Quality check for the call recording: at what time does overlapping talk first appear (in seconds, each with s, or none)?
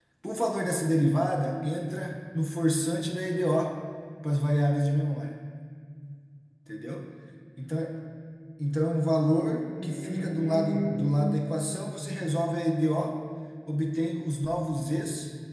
9.6 s